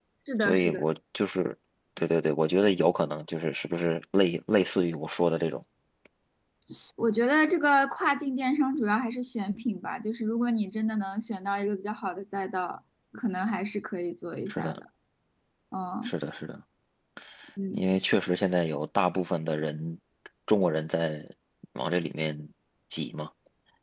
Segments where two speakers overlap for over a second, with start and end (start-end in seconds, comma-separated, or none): none